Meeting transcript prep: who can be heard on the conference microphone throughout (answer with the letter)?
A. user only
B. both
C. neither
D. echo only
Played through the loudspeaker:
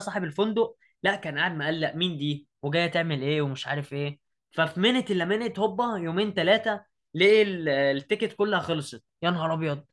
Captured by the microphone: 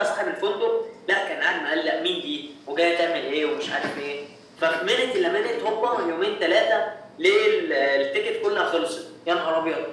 D